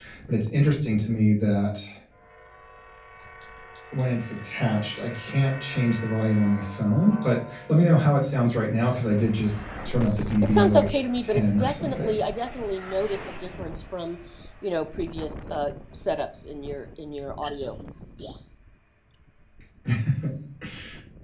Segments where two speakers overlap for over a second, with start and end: 10.4-12.1

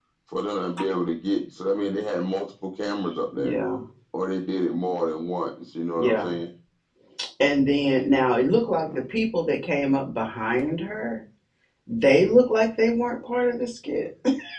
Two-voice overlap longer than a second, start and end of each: none

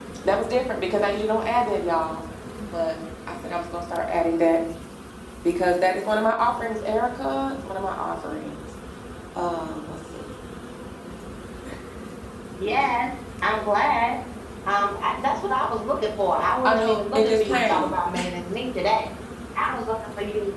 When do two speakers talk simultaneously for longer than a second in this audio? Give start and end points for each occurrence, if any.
16.6-17.9

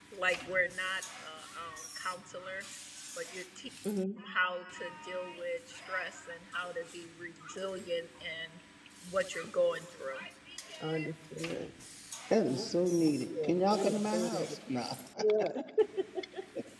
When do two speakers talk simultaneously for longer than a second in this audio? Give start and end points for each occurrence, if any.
13.3-14.6

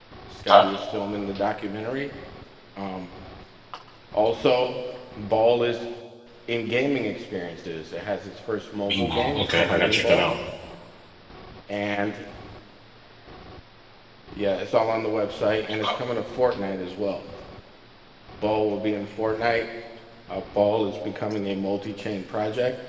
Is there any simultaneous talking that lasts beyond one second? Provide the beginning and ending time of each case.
8.9-10.3

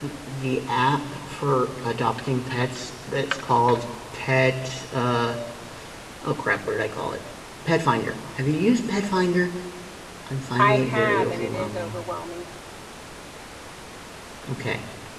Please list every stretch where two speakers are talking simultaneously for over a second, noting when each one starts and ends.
10.6-11.9

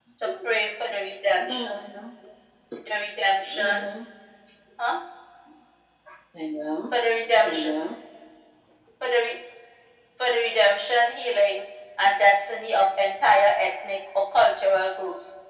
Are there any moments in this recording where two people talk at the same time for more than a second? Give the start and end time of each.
none

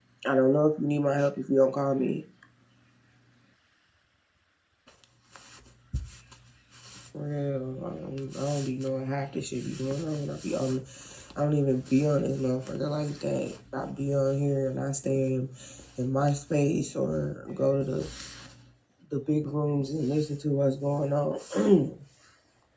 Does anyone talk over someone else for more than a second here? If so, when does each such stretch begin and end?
none

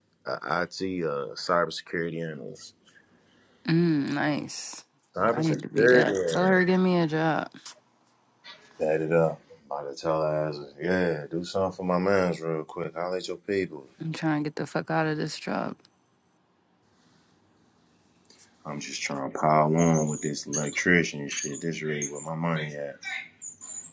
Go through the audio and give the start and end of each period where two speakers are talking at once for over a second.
5.3-6.6

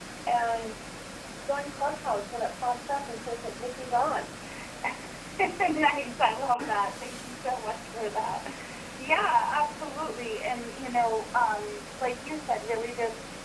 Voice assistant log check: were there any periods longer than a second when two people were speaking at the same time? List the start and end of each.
none

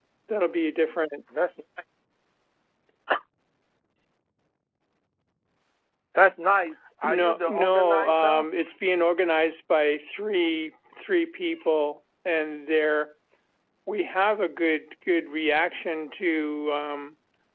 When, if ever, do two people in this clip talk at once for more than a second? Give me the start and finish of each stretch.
7.0-8.4

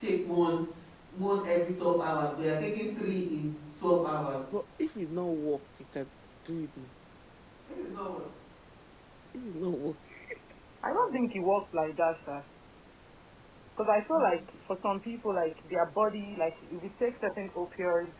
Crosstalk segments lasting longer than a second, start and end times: none

